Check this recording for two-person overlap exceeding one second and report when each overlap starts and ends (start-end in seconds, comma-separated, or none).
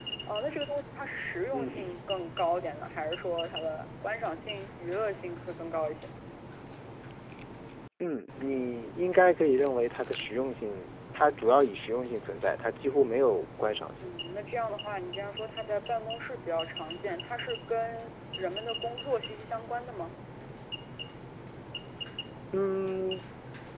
none